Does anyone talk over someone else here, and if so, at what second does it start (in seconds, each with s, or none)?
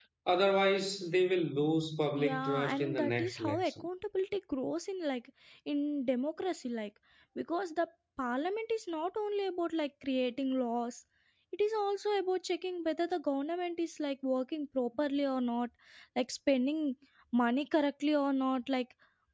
2.2 s